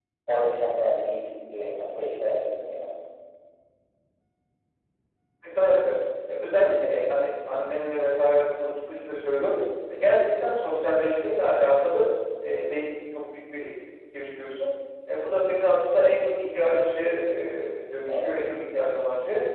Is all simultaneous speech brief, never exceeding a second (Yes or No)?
Yes